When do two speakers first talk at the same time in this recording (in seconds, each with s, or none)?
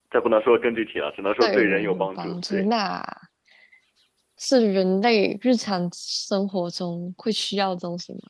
1.4 s